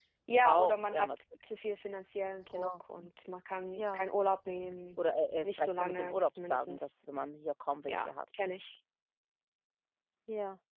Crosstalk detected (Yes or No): Yes